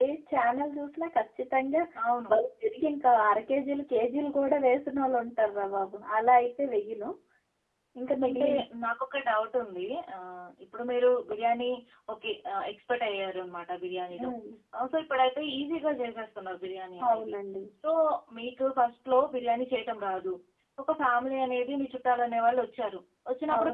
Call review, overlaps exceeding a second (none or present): none